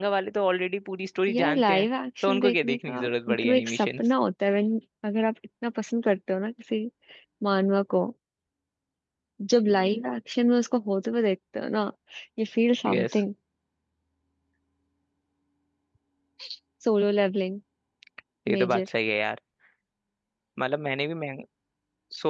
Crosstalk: present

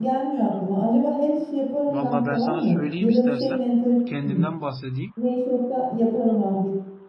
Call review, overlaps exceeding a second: present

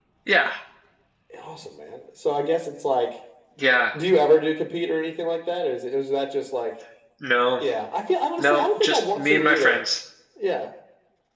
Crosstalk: present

